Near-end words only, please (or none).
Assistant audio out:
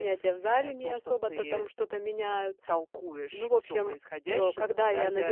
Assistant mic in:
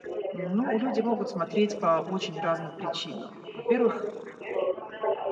ну, люди могут смотреть по очень разным причинам. Во-первых,